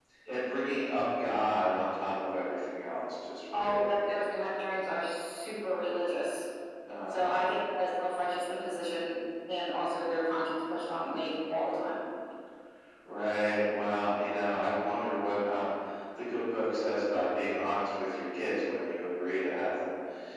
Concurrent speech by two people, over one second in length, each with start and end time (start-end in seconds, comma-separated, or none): none